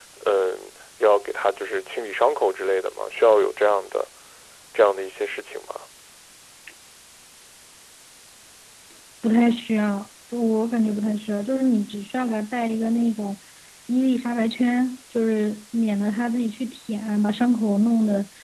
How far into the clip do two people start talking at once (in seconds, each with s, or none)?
none